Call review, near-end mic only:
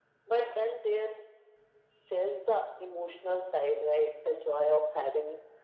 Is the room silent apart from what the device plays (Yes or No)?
Yes